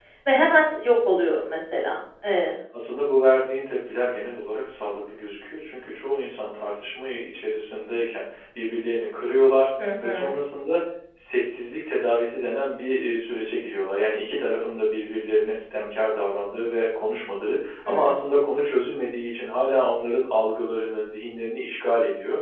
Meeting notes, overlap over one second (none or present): none